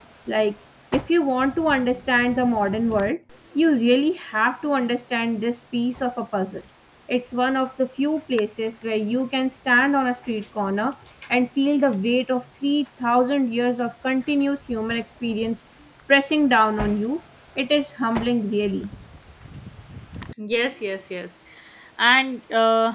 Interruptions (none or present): none